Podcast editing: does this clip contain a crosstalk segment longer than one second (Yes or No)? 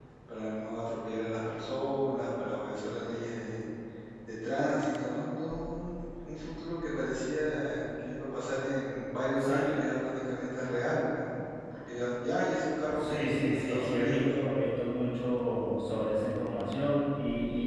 Yes